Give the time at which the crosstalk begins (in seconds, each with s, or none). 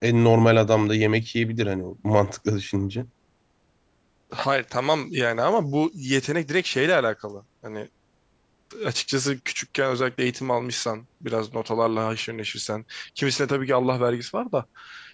none